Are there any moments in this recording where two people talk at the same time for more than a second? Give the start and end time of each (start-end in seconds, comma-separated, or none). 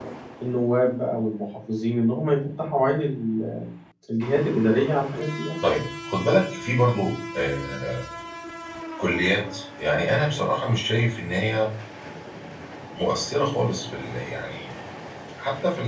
none